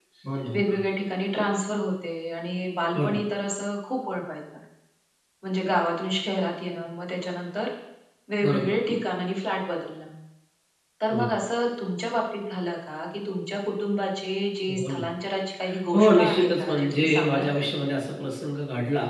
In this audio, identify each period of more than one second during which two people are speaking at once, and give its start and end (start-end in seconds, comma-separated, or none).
15.9-17.6